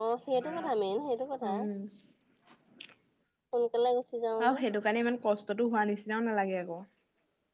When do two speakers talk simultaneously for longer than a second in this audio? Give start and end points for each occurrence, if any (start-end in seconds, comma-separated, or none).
none